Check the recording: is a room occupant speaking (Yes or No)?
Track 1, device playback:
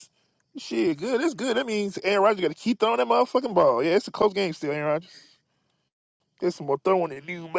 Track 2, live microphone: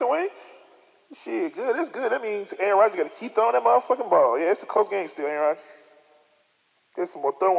No